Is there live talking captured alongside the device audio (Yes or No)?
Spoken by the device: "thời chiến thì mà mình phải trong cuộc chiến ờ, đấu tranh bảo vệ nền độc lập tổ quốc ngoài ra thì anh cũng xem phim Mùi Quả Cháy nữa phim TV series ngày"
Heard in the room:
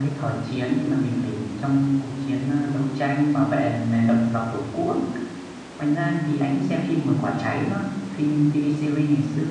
No